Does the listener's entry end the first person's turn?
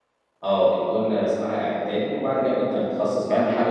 No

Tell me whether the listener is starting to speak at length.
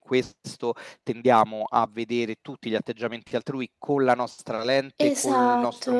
No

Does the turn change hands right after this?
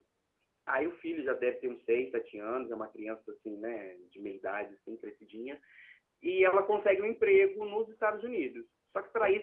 No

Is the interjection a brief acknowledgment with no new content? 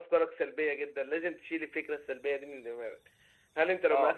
Yes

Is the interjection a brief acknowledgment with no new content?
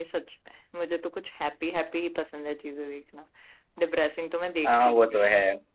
No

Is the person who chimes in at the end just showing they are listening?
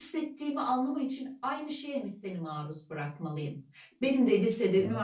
Yes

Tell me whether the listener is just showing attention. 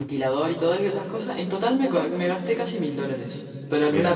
Yes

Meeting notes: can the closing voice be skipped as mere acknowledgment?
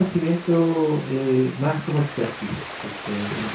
No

